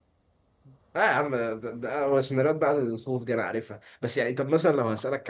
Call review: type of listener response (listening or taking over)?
listening